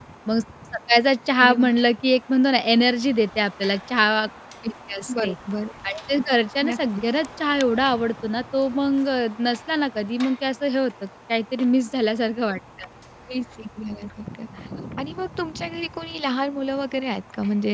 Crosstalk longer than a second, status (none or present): none